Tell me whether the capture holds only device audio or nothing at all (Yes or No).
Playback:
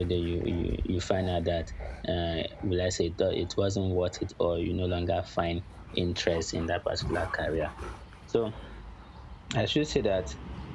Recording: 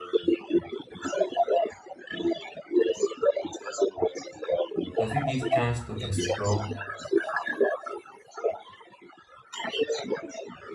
No